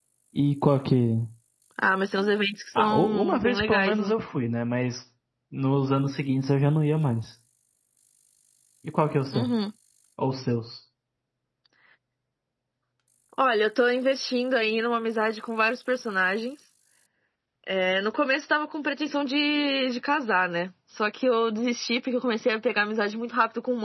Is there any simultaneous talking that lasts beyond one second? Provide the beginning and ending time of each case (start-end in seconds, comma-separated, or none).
2.8-4.1